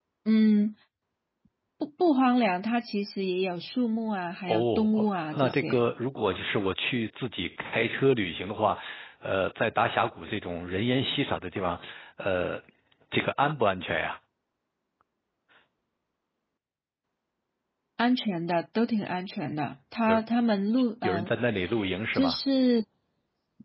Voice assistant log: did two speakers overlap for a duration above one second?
Yes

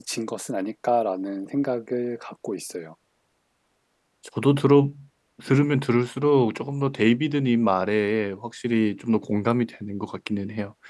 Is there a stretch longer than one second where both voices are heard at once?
No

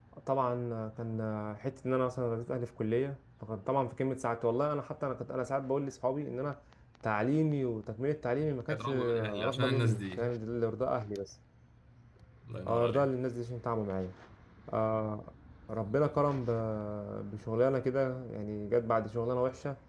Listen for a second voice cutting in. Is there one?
Yes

